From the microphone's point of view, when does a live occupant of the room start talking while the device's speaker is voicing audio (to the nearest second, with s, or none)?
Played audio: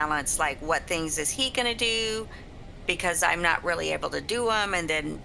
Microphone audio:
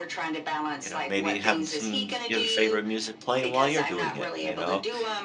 1 s